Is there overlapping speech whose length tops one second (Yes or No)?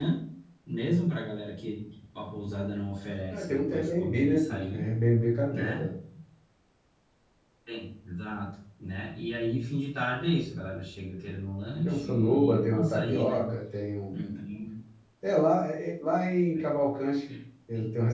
Yes